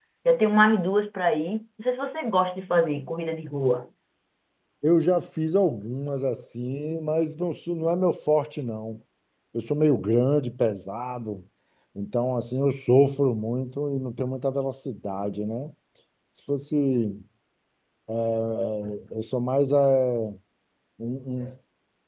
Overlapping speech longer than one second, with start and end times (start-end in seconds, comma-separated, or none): none